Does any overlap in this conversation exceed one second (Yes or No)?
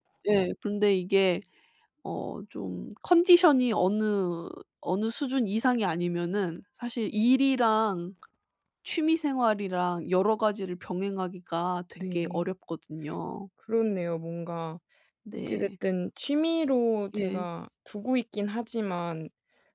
No